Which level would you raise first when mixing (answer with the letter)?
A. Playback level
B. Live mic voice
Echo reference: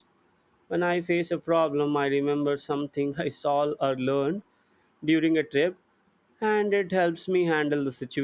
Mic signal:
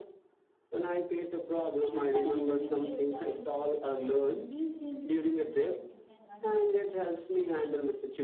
B